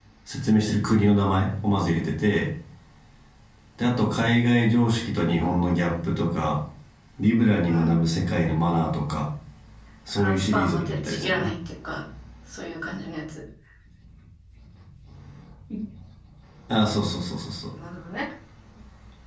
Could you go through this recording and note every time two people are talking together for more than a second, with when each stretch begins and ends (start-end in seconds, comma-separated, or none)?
10.2-11.5